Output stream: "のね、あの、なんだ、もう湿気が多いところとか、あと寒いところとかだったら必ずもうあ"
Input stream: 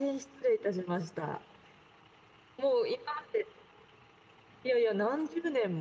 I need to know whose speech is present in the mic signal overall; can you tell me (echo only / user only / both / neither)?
user only